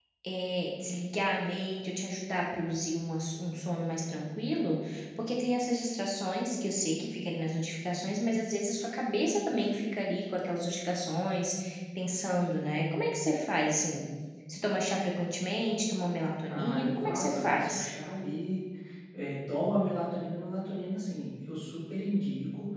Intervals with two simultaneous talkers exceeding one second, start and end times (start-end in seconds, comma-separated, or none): 16.5-17.9